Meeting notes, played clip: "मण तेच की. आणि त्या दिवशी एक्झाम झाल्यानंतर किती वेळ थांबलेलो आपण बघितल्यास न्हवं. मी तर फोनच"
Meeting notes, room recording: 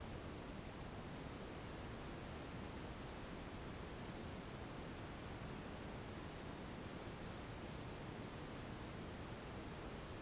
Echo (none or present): none